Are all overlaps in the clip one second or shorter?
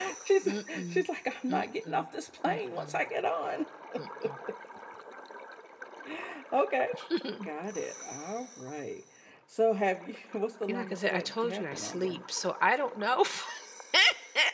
No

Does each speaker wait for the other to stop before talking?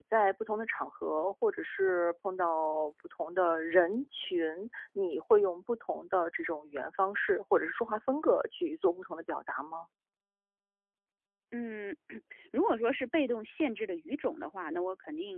Yes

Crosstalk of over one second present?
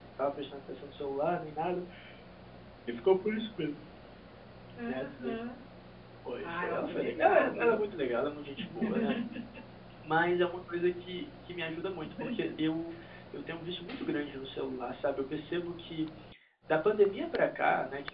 Yes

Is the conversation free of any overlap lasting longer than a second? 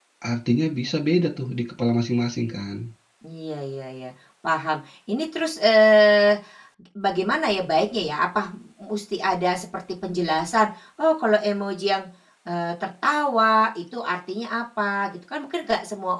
Yes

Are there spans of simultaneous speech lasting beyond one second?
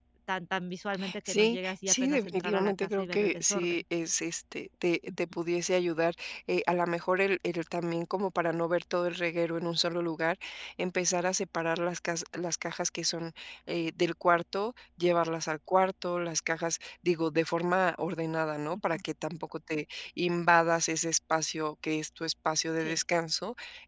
Yes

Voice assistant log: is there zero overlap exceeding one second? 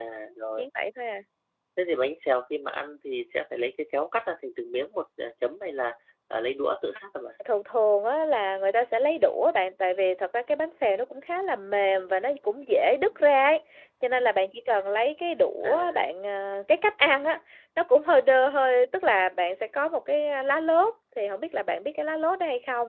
Yes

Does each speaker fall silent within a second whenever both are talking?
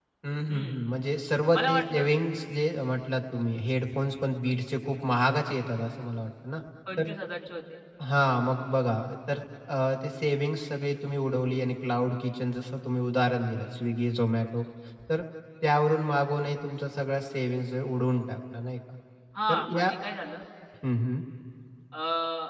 Yes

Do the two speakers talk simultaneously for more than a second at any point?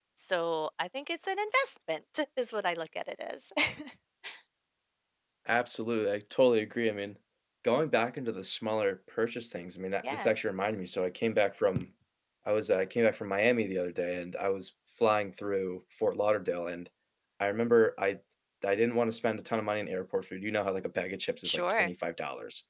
No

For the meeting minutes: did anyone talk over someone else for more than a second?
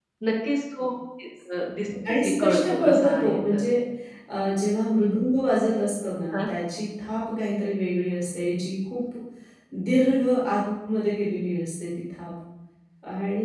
Yes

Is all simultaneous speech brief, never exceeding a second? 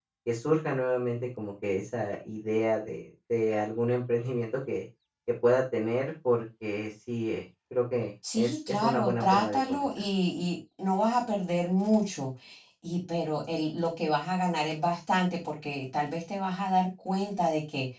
No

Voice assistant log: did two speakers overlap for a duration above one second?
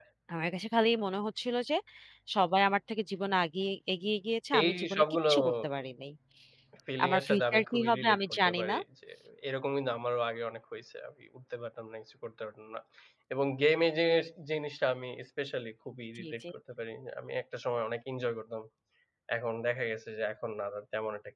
Yes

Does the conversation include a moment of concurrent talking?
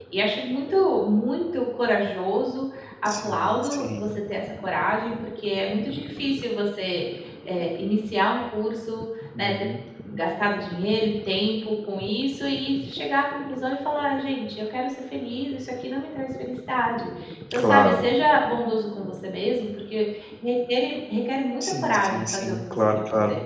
Yes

